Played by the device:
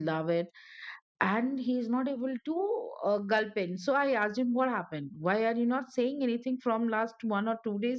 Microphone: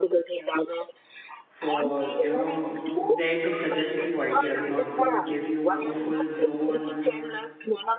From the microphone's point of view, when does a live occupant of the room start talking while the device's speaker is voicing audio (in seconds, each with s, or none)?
1.5 s